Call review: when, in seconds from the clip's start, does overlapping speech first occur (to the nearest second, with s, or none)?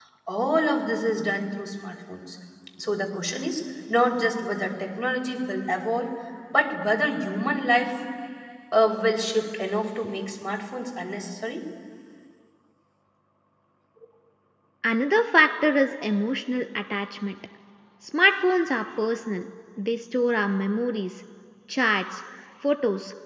none